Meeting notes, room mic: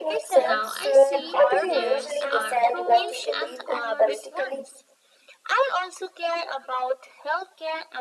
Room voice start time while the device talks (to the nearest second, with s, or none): 0 s